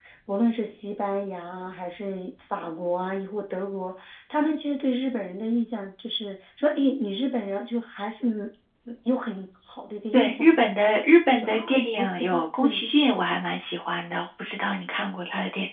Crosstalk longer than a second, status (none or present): present